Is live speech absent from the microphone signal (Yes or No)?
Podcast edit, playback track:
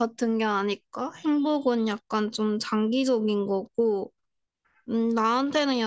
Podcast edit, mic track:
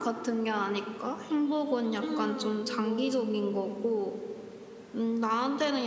No